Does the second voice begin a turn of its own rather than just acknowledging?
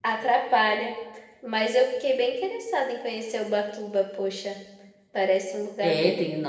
Yes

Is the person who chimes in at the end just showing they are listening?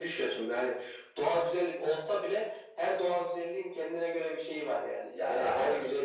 No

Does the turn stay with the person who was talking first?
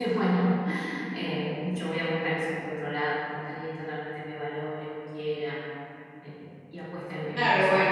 No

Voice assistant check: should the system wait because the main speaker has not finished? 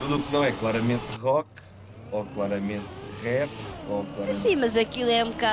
No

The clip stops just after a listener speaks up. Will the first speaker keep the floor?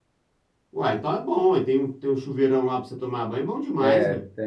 No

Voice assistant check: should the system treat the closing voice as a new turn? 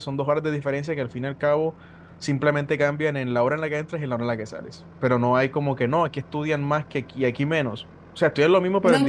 Yes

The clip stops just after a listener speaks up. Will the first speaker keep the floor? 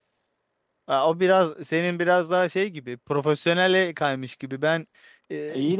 Yes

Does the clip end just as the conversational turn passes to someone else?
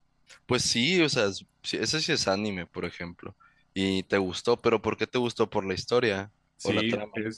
Yes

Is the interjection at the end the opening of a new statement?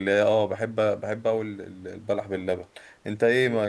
No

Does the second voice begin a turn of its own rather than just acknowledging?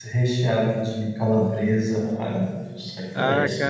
Yes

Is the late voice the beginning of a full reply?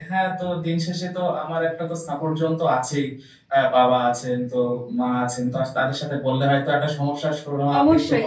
Yes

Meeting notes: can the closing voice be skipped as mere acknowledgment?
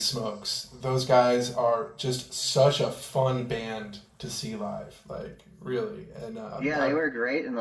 No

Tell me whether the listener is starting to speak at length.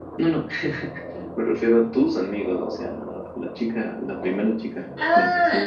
Yes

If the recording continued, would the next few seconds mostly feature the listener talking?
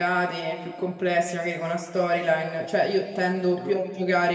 No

